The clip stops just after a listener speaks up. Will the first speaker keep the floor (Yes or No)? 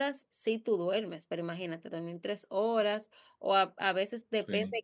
Yes